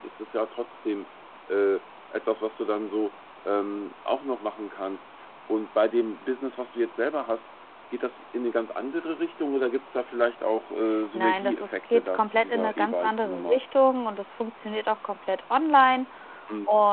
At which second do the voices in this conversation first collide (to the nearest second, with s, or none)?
11 s